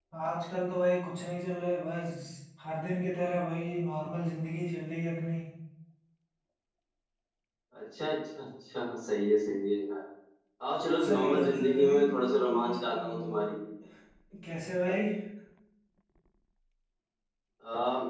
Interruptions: present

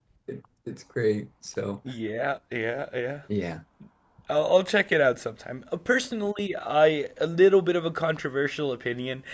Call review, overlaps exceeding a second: none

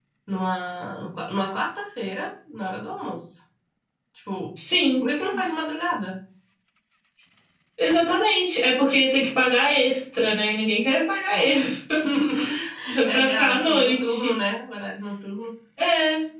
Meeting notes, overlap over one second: present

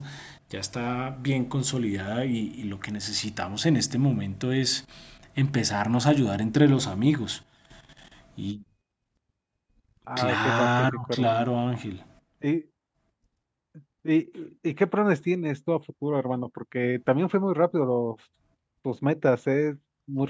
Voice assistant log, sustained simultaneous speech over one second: present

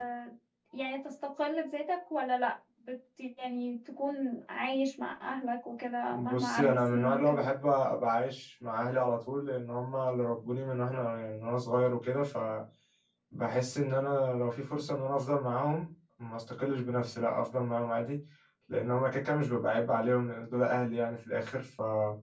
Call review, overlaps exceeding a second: present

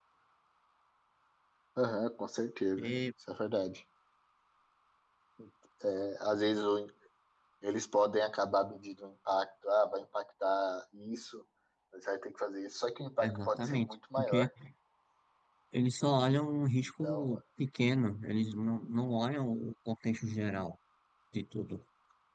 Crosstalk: present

